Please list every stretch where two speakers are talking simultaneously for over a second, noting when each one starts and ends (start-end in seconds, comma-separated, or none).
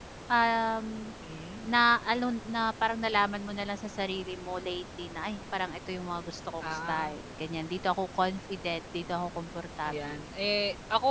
none